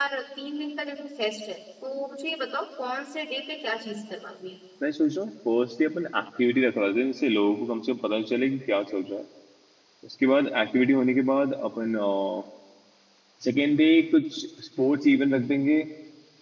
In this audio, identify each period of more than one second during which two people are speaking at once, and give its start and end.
none

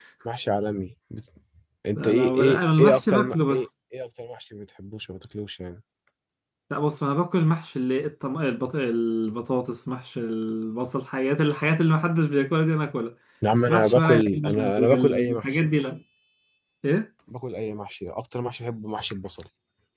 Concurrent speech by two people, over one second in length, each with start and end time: 1.9-3.6, 13.5-15.5

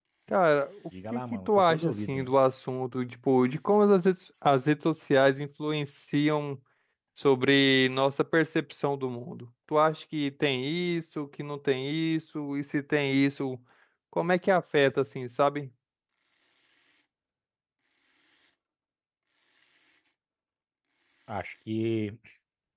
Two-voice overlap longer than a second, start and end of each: 1.1-2.3

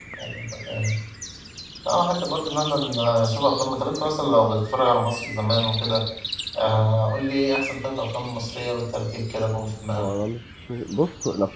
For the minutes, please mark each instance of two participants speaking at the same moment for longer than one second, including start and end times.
none

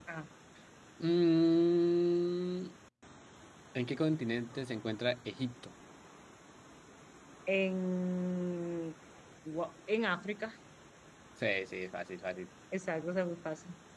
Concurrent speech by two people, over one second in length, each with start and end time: none

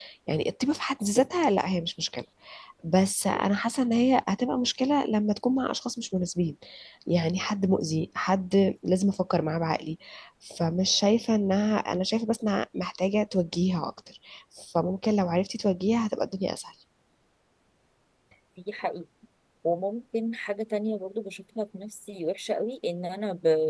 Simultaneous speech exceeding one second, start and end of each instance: none

